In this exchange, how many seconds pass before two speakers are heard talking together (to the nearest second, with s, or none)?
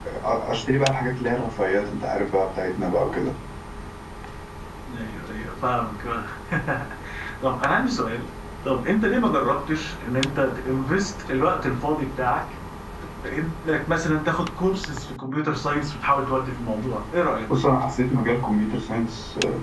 none